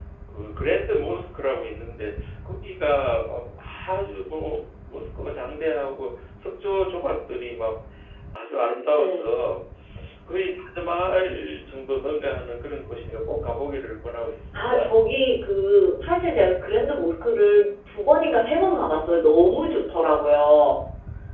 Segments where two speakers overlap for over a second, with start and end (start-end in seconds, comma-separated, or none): none